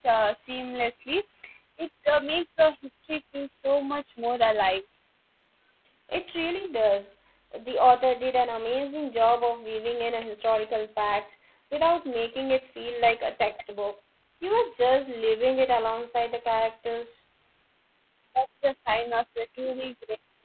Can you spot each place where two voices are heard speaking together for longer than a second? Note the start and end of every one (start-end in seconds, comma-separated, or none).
none